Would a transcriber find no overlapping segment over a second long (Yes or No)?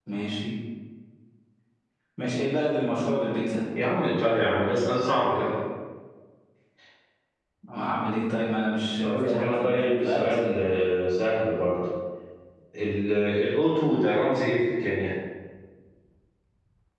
No